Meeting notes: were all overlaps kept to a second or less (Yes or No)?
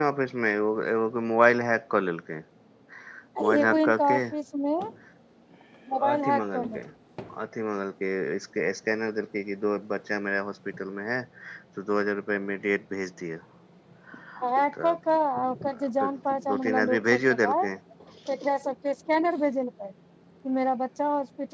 No